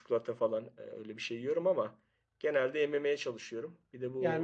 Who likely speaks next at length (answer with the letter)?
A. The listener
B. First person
A